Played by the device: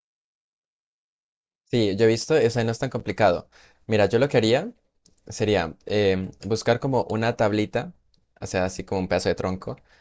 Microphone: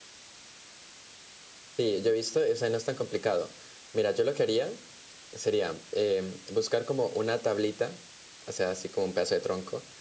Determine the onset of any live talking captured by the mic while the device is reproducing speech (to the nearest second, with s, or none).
none